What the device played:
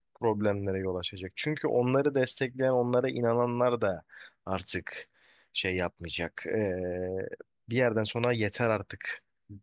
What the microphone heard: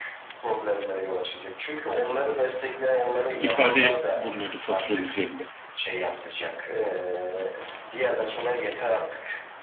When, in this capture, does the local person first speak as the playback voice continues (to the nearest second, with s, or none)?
3 s